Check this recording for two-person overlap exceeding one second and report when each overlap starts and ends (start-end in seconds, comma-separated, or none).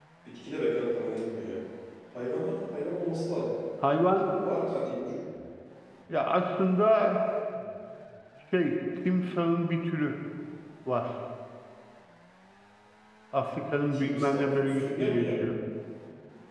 13.9-15.3